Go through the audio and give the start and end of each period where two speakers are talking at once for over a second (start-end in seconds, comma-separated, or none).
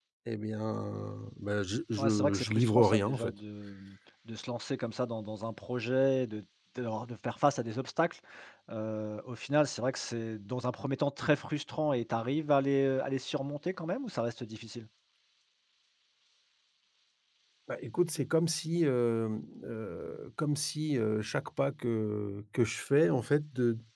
2.0-3.3